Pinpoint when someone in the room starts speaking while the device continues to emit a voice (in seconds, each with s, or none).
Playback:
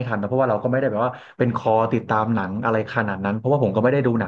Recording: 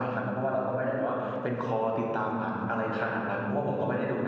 none